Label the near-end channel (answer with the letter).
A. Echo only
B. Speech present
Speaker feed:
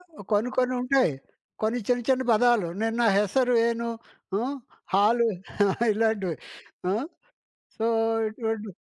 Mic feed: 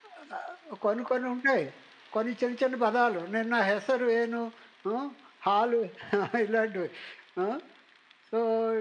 A